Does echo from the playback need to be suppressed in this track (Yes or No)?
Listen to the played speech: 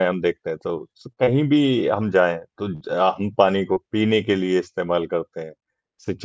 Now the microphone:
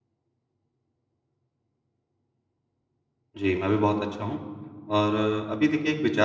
No